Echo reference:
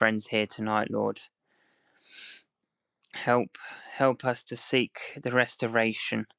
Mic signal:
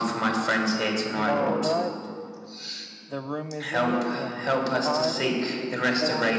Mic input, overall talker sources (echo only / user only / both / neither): both